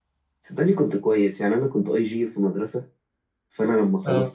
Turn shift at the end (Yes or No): No